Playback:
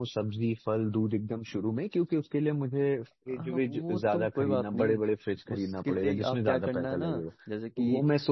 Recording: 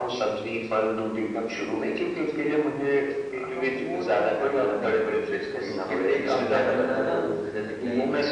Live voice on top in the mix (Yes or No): No